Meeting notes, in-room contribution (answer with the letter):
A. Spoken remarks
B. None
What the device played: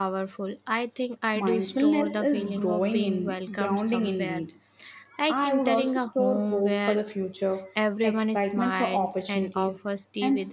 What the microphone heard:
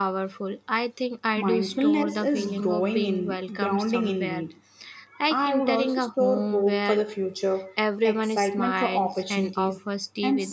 B